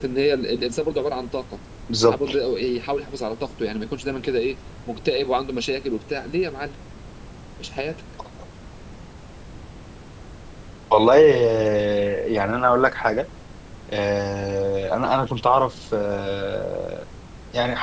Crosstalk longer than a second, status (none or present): none